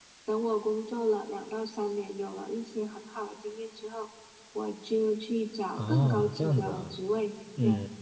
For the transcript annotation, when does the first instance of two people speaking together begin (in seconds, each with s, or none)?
5.8 s